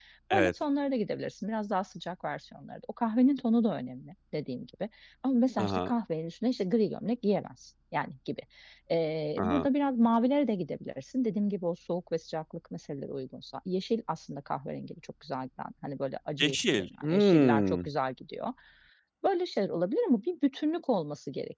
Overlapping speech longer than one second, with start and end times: 16.4-17.9

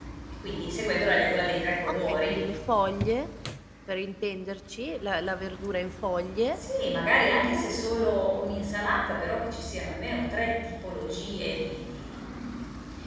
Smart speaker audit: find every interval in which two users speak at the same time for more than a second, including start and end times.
none

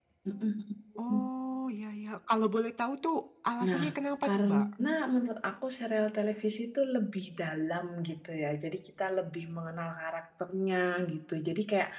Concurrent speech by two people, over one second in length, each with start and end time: none

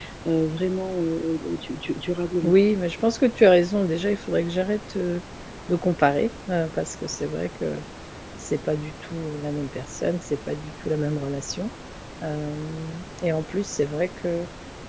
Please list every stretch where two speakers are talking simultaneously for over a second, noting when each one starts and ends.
none

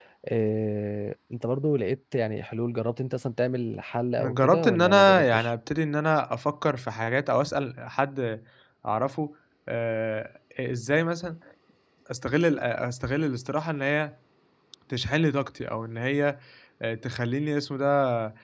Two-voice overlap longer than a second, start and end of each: 4.2-5.5

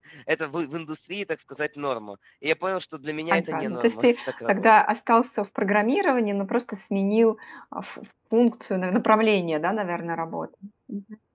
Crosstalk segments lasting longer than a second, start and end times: 3.3-4.7

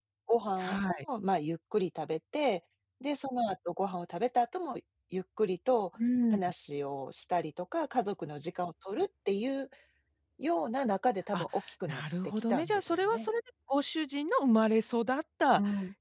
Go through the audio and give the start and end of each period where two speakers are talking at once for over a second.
11.9-13.3

